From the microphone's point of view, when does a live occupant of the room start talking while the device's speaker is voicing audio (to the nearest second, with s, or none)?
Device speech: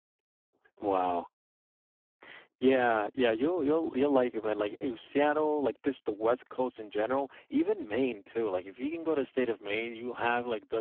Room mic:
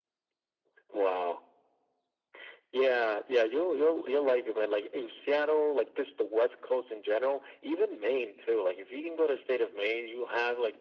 none